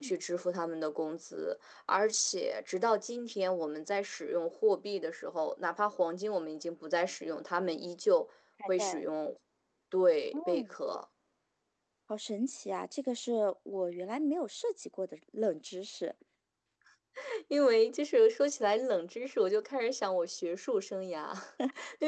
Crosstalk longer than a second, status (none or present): none